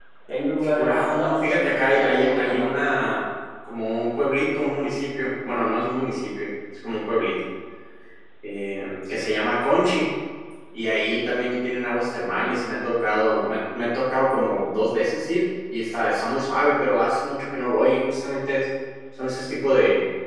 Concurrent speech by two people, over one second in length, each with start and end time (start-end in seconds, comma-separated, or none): 0.8-2.8